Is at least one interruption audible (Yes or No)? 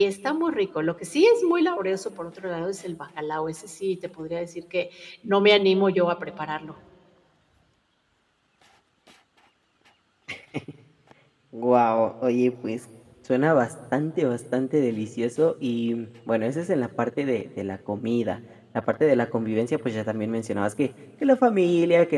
No